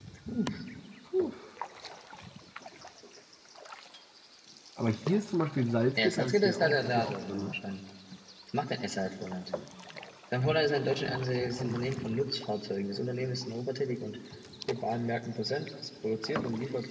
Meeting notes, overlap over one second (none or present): present